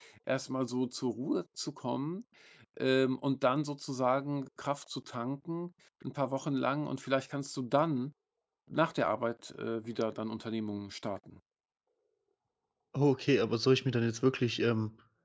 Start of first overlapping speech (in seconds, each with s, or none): none